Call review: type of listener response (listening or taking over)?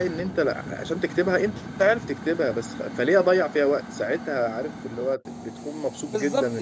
taking over